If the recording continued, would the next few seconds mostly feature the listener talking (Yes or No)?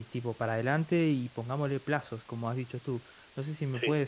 No